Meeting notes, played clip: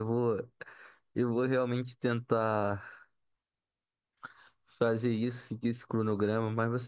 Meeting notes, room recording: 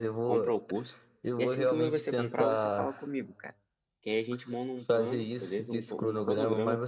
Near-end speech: present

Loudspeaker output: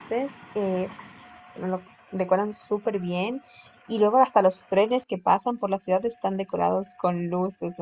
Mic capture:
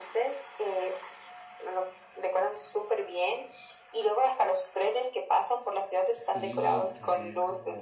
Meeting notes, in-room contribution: present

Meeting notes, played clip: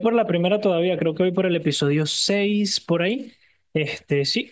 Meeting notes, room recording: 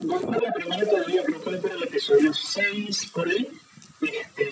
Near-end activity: none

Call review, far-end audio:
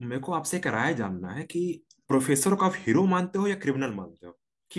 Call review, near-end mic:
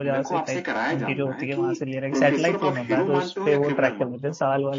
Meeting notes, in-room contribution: present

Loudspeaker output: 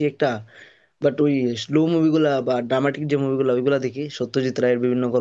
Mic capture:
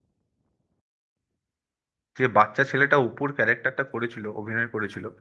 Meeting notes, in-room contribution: present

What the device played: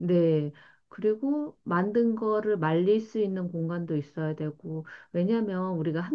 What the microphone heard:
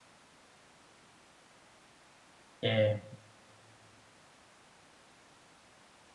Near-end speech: present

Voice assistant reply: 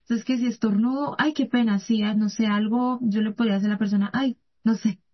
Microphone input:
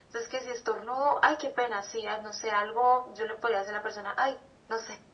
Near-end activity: none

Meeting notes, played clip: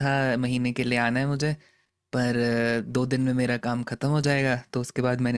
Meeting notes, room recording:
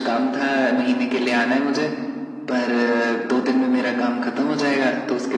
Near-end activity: none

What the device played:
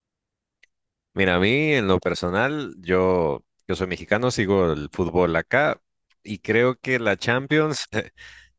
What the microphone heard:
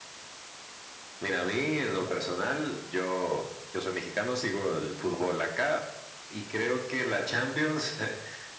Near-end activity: none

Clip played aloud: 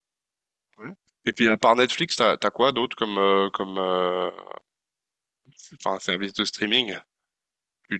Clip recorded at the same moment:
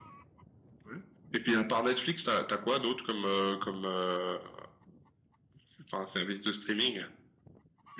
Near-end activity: none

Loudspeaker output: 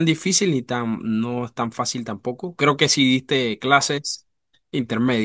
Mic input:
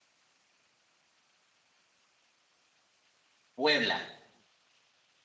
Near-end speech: present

